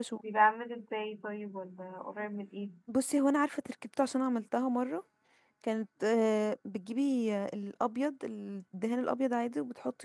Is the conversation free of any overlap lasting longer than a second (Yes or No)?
Yes